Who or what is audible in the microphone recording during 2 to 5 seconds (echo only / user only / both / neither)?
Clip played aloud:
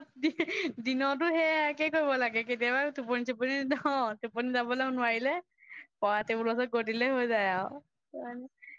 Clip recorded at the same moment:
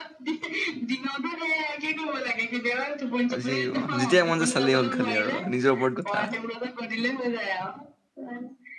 both